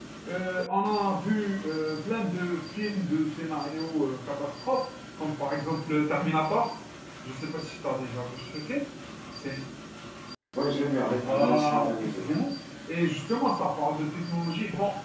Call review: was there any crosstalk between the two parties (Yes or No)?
Yes